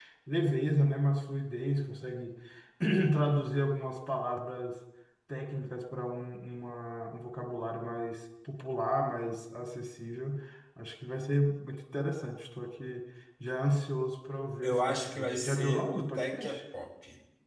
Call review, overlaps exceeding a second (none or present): present